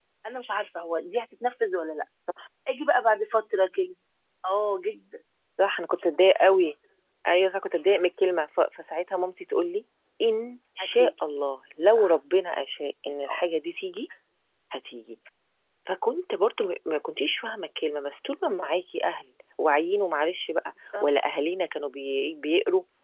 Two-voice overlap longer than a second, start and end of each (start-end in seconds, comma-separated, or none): none